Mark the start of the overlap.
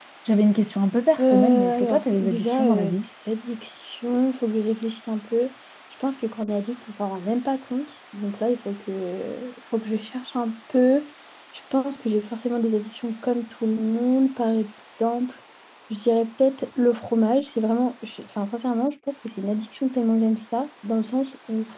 1.2 s

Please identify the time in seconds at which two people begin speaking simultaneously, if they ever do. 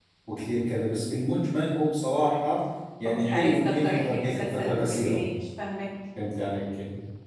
3.0 s

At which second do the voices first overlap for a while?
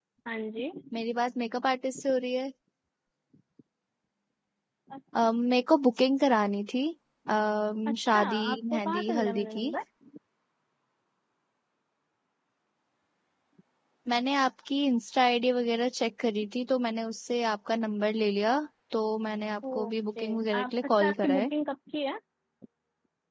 8.0 s

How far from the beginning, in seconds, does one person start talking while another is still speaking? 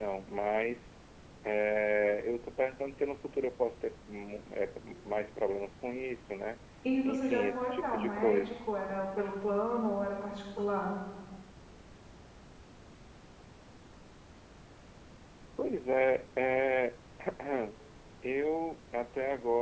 7.0 s

